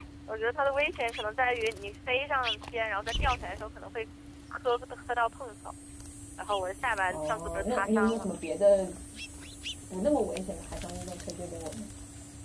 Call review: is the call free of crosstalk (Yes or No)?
No